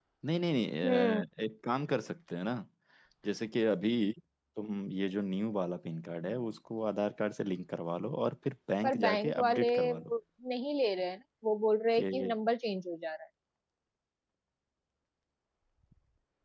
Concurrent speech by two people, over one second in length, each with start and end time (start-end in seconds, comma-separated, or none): 8.8-10.1